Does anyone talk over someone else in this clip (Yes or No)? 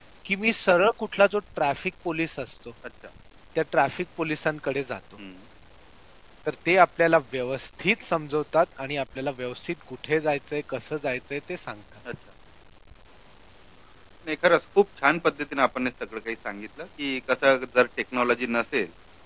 No